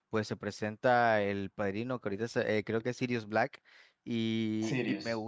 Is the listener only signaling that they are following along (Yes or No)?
Yes